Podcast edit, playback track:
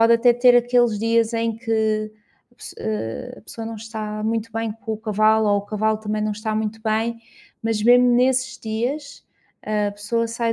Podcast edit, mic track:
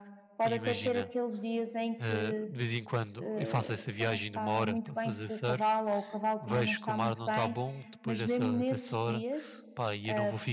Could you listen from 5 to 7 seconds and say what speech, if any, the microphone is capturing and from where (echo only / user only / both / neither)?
both